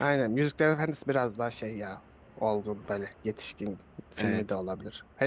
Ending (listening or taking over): listening